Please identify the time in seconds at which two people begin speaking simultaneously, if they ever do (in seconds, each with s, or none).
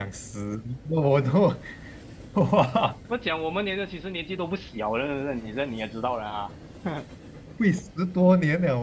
none